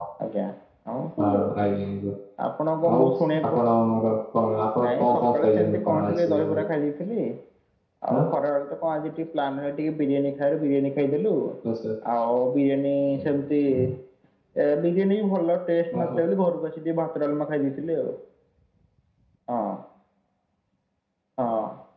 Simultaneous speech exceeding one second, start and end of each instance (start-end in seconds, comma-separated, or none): 4.8-6.3